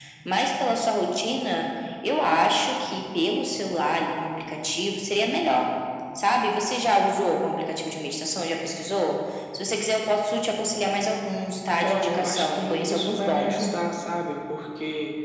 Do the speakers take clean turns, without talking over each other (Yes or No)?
No